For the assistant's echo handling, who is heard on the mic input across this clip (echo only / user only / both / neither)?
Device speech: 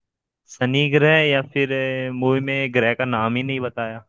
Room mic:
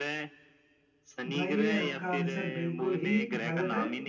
both